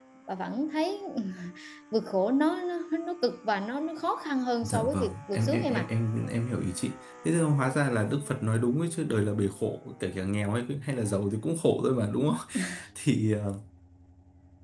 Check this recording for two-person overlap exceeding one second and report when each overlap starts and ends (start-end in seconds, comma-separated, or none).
4.6-5.9